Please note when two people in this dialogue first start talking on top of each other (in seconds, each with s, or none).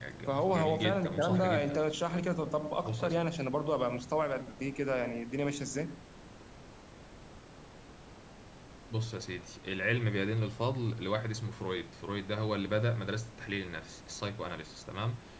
0.5 s